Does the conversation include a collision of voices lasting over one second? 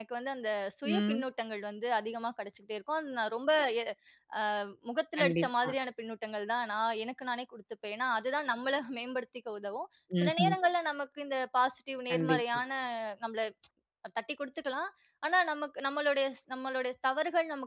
No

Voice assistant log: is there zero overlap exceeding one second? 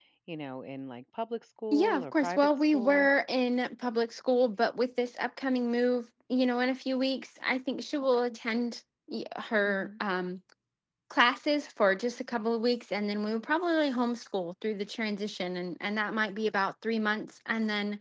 No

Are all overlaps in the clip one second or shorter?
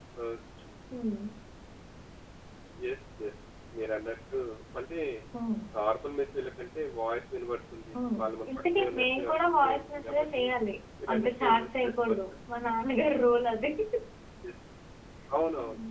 No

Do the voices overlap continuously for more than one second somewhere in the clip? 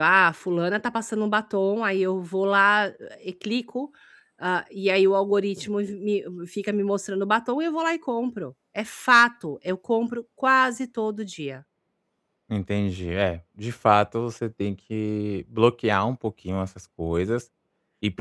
No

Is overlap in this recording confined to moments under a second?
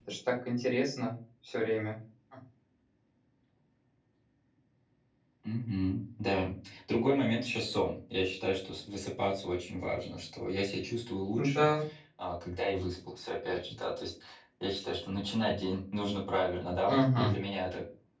Yes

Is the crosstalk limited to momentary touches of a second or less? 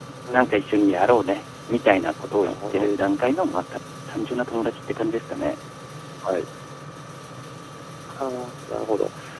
Yes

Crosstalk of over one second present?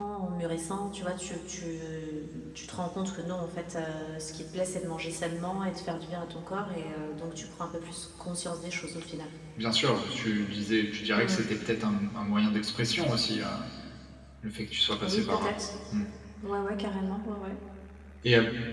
No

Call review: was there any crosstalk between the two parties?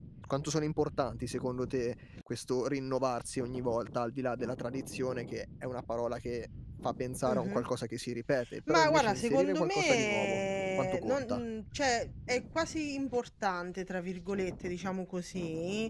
Yes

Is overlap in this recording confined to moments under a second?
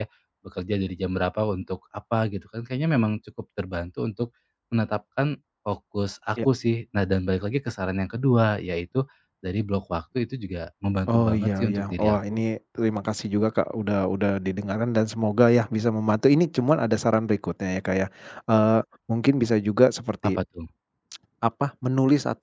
No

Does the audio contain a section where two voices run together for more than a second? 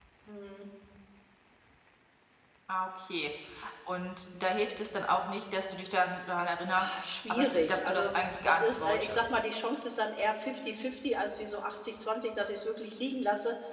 Yes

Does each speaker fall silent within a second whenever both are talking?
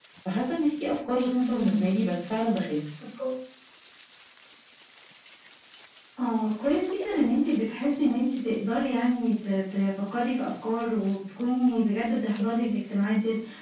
Yes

